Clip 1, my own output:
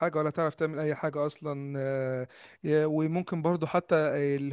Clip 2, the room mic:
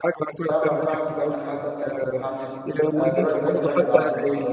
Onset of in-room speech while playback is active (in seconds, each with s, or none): 0.5 s